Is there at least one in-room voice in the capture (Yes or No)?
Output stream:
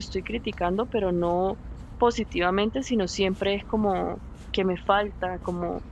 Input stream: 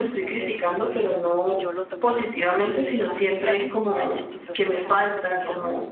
Yes